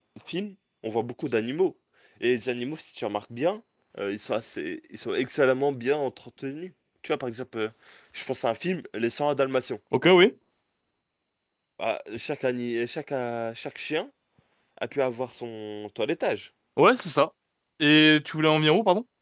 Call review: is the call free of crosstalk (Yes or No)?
Yes